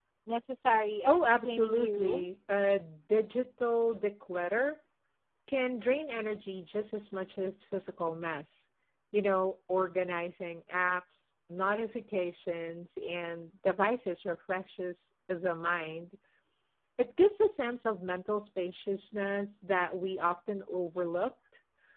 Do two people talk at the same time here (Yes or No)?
Yes